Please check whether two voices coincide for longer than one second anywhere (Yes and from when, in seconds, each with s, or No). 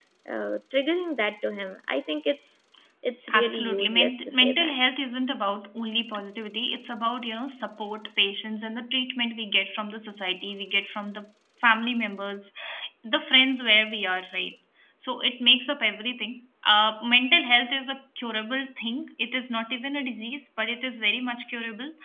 Yes, from 3.3 s